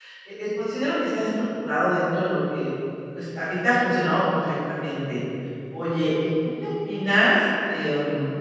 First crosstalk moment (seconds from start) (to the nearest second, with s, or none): none